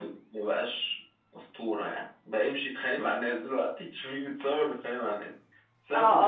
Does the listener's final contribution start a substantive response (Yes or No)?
Yes